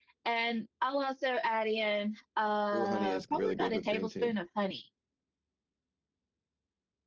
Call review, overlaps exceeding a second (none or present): present